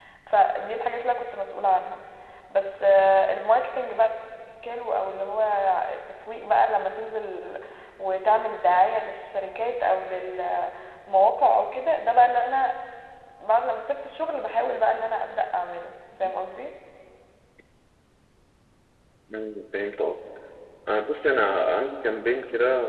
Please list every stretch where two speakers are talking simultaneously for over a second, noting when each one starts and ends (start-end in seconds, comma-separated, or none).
none